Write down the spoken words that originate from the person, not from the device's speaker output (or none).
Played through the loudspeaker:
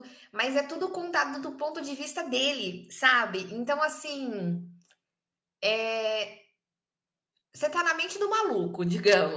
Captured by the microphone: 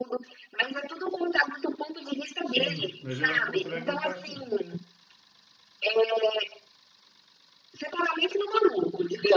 Sim, mas eu acho que você vai gostar, sim.